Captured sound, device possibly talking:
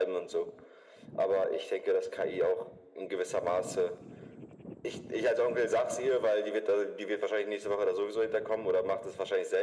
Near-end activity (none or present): none